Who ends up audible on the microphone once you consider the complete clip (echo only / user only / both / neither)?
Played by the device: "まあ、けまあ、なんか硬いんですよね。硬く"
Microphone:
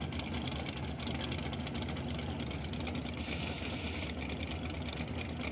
neither